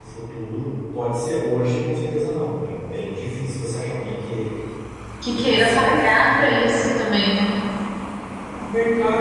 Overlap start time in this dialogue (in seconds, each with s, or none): 5.3 s